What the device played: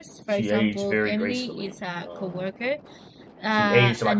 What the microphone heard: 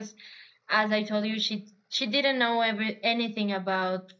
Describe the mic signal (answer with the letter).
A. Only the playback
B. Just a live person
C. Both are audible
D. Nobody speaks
B